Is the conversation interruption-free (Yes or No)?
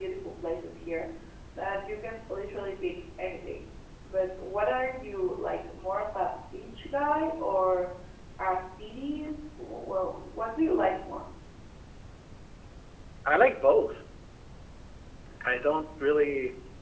Yes